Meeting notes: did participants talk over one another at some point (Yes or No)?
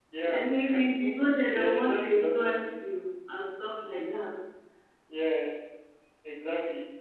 Yes